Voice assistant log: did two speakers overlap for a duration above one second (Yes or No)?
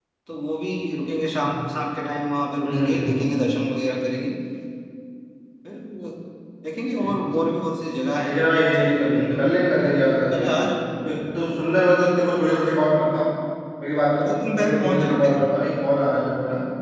Yes